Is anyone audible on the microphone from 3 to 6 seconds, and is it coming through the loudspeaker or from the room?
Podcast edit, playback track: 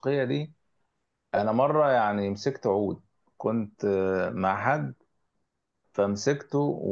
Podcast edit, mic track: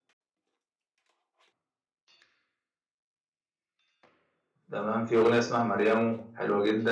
user only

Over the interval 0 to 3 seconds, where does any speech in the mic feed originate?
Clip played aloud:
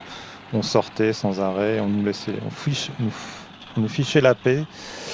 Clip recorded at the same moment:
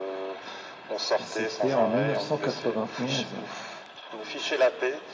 both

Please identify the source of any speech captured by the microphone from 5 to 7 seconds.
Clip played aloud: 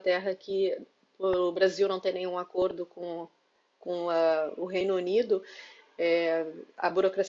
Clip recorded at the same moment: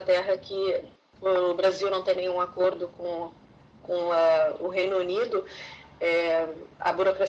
echo only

